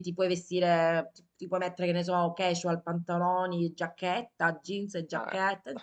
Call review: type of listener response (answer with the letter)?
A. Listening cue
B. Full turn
B